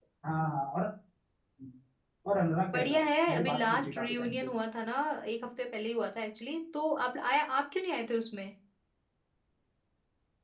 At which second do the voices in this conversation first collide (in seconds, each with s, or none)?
2.7 s